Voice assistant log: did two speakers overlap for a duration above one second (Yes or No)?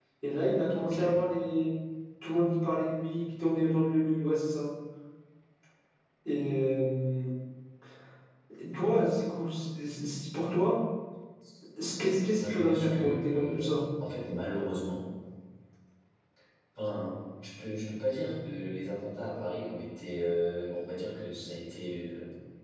Yes